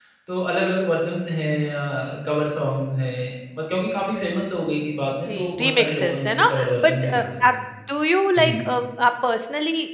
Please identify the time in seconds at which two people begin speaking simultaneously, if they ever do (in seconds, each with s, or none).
5.3 s